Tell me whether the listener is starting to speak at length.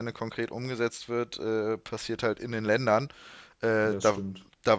No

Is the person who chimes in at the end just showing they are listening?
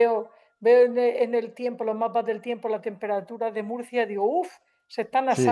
No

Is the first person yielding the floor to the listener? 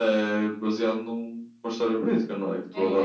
Yes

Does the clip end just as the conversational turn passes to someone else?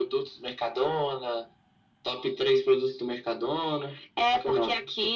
Yes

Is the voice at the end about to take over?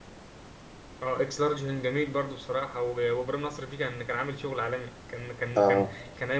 No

